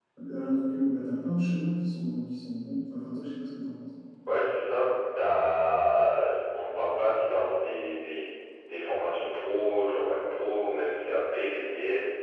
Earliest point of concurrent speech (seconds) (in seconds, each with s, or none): none